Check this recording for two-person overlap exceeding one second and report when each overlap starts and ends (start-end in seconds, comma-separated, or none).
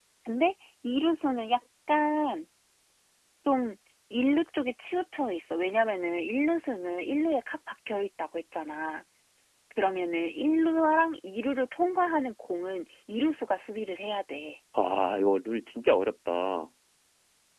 none